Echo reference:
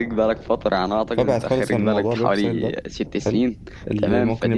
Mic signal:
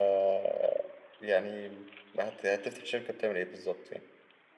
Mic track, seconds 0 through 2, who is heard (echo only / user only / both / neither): user only